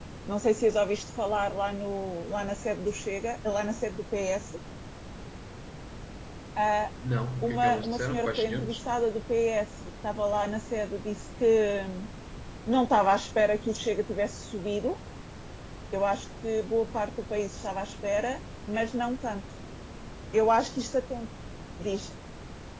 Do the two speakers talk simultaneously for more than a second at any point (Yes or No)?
Yes